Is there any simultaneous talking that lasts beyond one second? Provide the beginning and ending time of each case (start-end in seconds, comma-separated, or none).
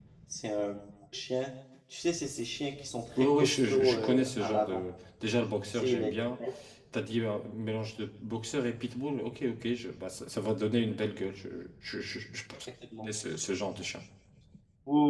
3.1-4.9